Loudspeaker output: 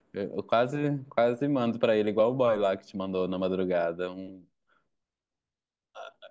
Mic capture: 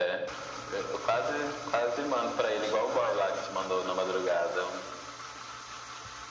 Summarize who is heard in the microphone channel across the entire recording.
echo only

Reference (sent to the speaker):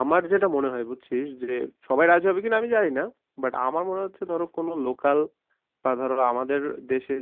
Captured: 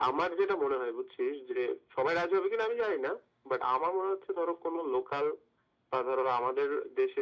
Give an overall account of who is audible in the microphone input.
echo only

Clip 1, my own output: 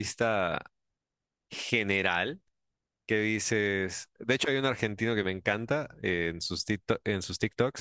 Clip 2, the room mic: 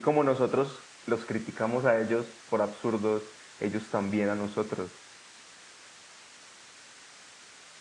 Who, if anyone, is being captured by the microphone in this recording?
user only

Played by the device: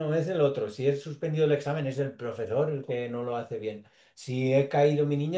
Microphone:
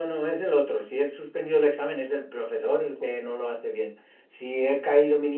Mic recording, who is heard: echo only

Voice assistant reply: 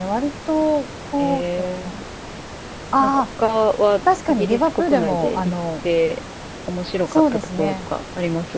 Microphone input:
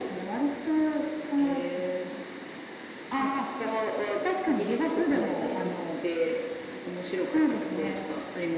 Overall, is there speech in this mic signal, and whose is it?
echo only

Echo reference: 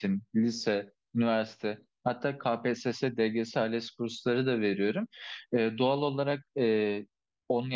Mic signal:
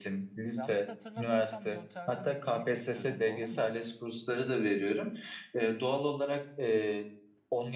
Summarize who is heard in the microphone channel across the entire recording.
both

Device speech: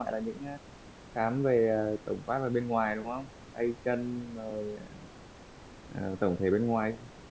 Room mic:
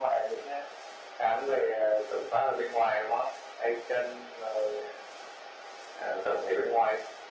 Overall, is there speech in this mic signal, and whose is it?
echo only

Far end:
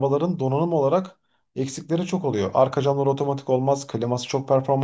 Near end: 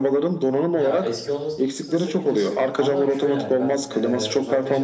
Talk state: both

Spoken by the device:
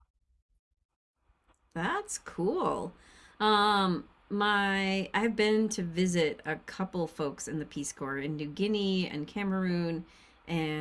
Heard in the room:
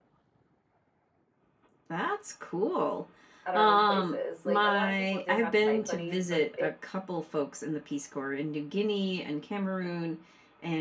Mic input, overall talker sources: both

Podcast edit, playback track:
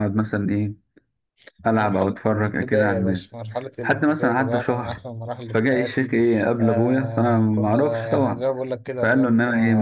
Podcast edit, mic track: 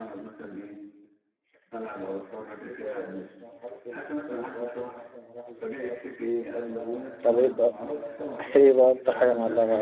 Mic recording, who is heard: both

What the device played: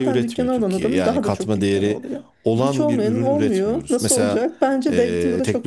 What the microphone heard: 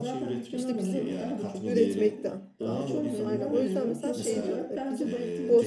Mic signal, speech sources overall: both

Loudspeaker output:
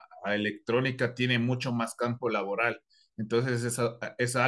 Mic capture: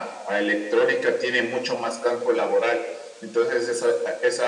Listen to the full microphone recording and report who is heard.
echo only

